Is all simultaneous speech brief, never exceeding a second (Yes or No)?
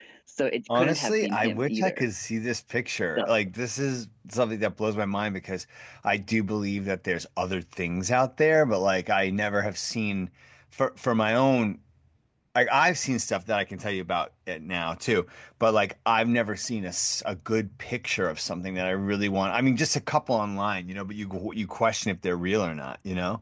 No